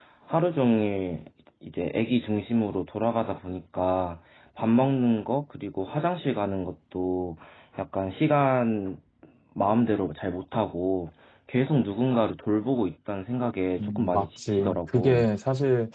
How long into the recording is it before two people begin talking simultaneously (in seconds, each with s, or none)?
13.8 s